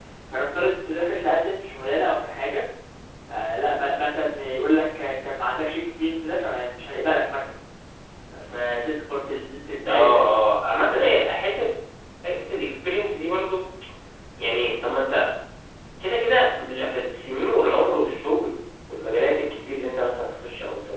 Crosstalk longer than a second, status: none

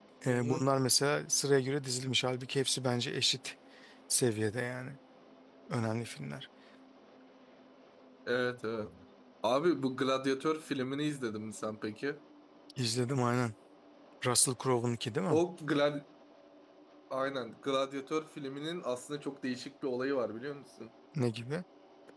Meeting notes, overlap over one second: none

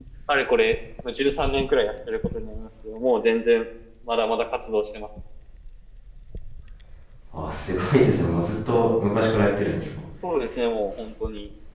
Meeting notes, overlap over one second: none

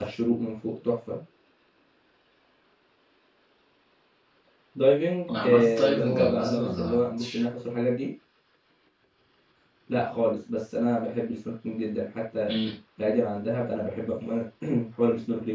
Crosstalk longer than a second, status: present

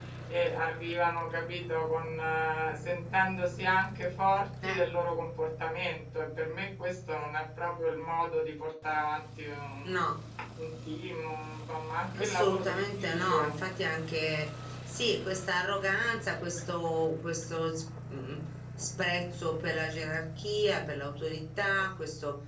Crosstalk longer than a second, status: present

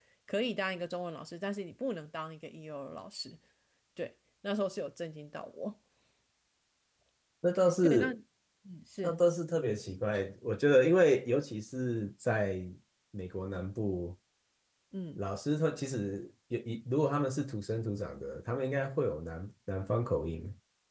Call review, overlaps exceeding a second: none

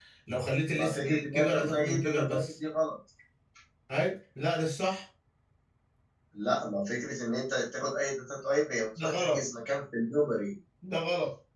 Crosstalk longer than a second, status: present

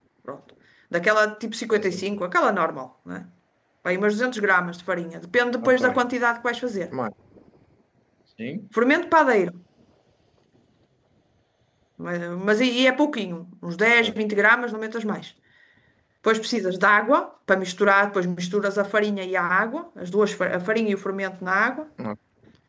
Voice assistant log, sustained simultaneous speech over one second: none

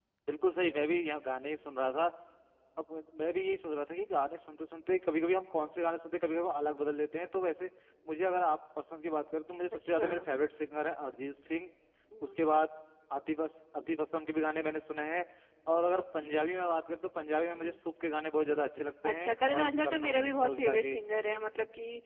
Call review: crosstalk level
present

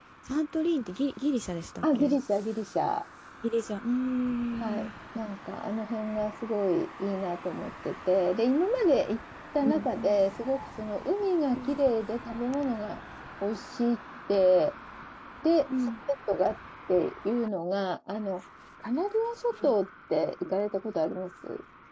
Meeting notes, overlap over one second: none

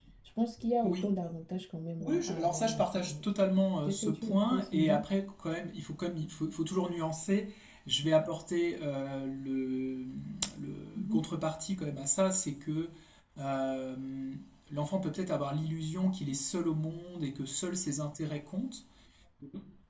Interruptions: present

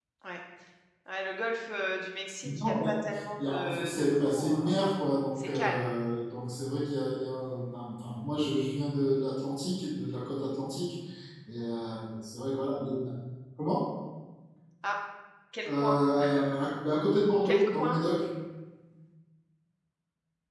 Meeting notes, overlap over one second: present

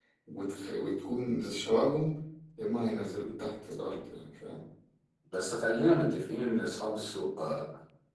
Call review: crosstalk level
none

